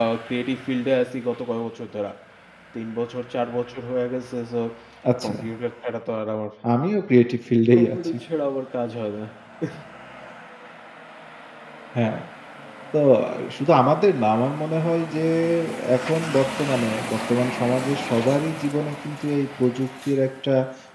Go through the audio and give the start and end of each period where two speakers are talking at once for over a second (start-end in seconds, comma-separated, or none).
none